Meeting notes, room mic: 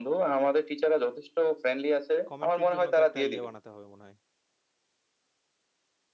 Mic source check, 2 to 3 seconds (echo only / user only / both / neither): both